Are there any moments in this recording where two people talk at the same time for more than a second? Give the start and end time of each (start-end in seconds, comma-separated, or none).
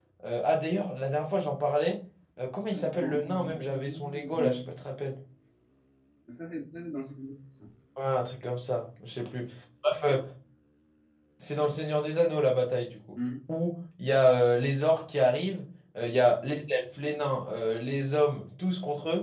2.7-4.7